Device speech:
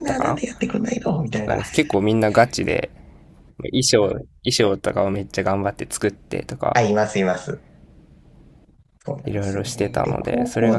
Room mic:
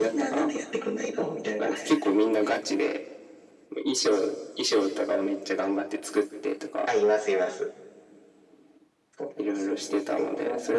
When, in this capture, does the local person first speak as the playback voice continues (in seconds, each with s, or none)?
none